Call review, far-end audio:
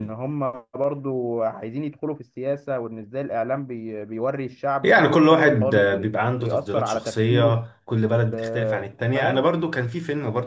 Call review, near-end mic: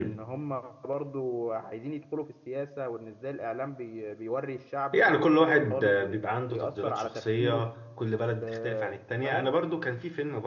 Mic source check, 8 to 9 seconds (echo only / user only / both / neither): echo only